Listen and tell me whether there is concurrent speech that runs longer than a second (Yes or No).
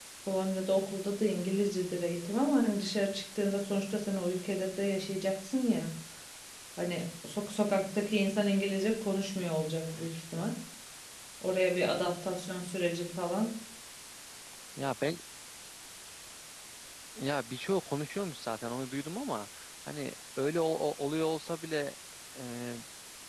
No